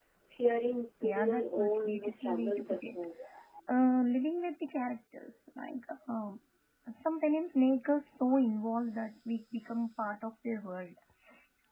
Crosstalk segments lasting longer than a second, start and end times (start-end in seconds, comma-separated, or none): 1.0-3.0